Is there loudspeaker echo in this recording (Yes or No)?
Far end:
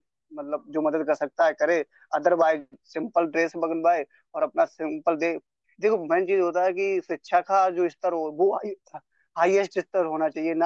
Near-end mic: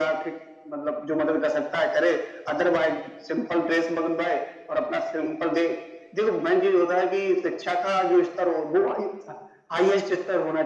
Yes